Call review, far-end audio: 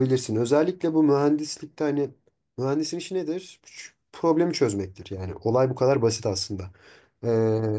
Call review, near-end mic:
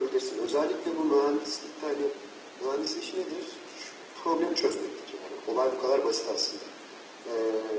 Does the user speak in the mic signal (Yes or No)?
No